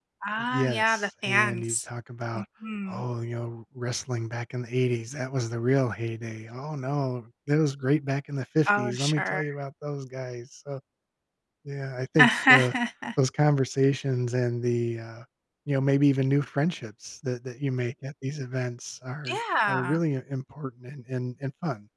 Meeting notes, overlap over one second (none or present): present